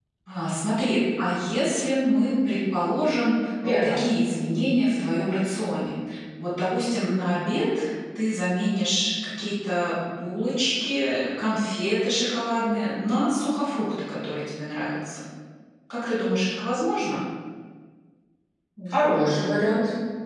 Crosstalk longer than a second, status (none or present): none